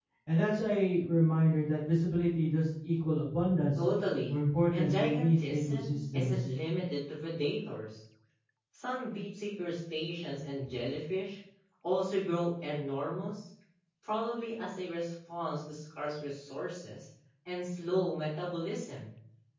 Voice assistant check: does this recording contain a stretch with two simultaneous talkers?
Yes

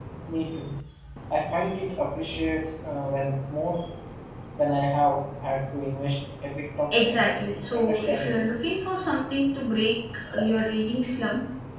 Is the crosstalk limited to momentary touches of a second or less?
No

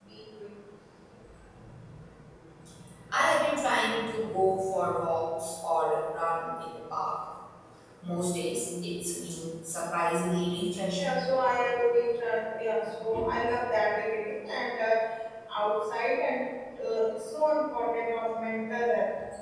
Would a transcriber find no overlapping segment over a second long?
Yes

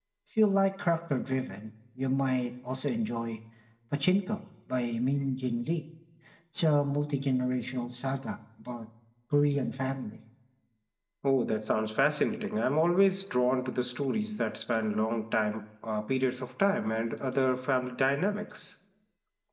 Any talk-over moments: No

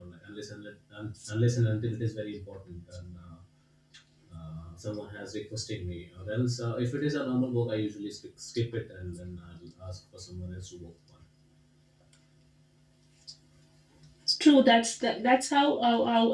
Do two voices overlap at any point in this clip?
No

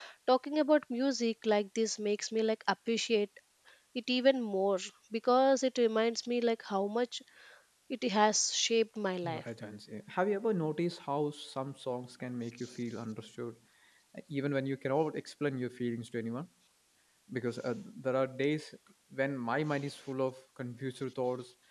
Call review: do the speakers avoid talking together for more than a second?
Yes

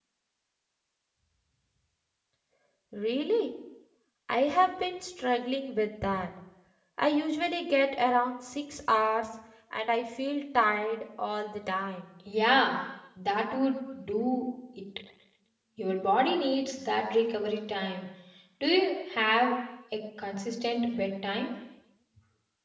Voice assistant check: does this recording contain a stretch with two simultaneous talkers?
No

